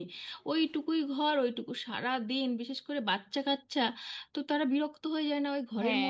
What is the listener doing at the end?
taking over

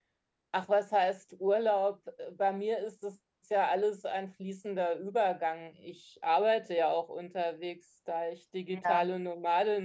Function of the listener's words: listening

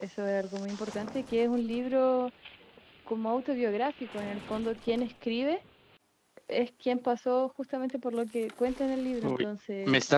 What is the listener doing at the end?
taking over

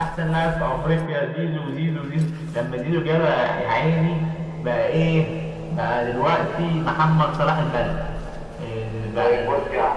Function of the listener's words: taking over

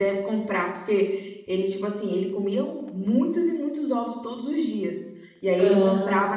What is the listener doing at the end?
listening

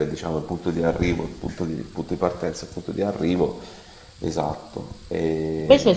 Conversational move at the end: taking over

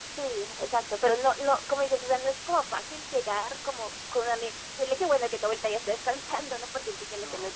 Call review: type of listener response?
taking over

